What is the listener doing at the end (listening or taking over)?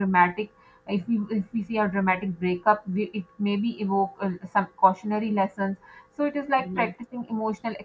listening